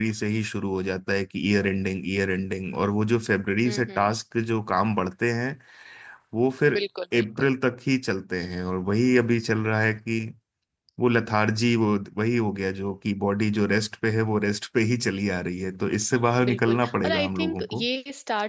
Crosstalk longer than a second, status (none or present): present